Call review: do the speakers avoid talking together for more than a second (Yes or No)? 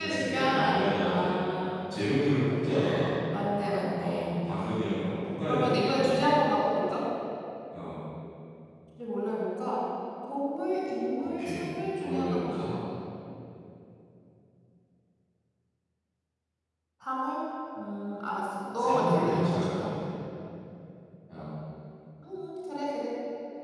No